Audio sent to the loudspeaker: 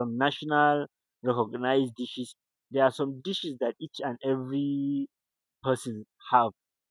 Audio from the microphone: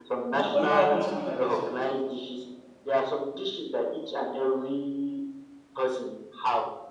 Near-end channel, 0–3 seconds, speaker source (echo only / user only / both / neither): both